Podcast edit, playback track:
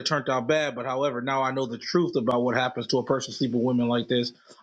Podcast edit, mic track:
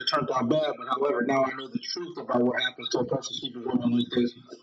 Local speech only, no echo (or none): none